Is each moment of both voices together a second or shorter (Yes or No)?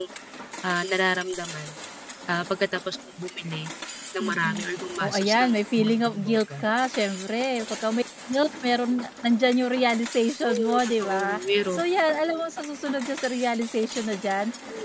No